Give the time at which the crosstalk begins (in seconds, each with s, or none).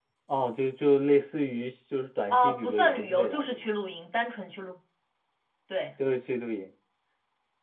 2.3 s